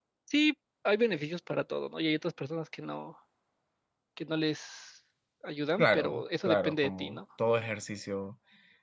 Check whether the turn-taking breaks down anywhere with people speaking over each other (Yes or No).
Yes